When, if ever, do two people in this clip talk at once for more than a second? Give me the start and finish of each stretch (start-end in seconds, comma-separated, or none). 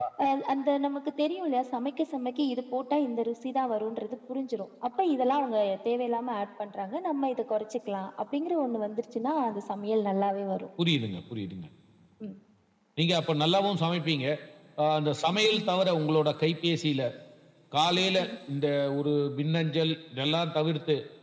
none